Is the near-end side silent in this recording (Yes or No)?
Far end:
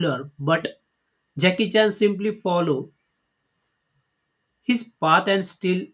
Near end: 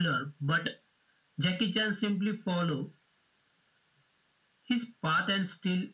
Yes